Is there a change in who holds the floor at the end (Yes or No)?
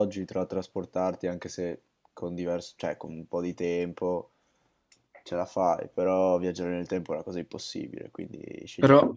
Yes